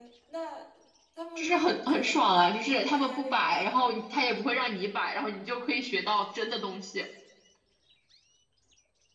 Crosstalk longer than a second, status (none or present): present